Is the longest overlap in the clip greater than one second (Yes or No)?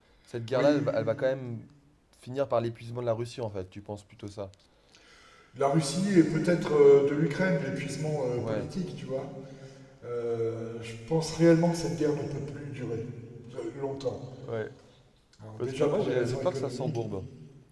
Yes